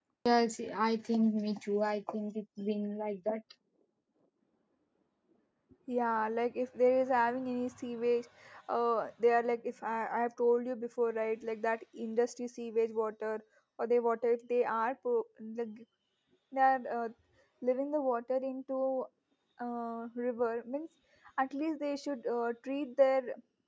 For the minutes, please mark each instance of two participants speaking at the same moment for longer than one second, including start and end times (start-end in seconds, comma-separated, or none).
none